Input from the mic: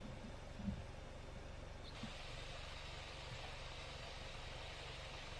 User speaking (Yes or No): No